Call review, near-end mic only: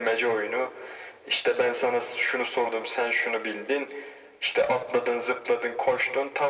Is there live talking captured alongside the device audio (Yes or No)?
No